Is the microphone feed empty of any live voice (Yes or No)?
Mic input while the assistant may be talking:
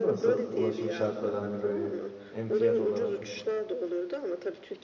No